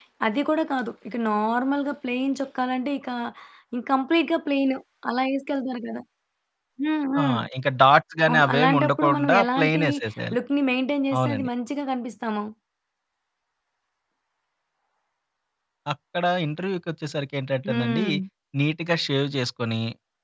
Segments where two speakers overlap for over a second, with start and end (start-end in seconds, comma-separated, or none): 8.3-9.8